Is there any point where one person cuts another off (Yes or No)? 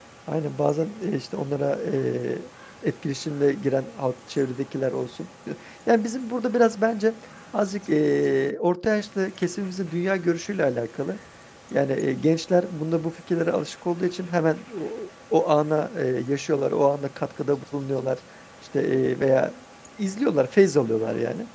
No